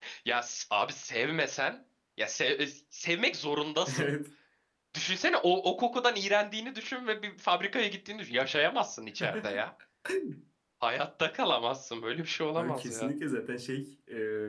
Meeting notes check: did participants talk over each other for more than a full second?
No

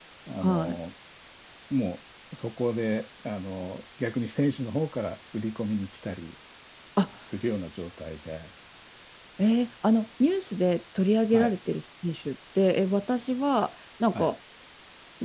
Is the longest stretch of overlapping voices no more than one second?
Yes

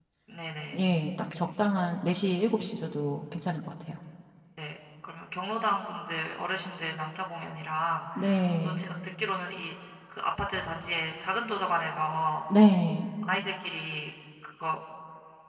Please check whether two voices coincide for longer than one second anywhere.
No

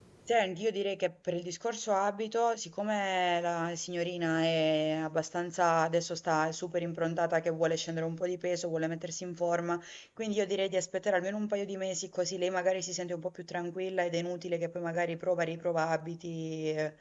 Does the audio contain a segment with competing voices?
No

